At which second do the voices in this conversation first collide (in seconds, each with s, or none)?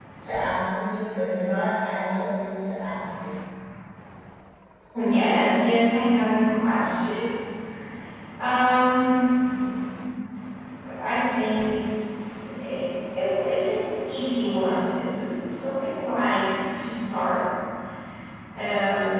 none